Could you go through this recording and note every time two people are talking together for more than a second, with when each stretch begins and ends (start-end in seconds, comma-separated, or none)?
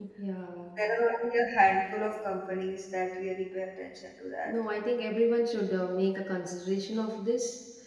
none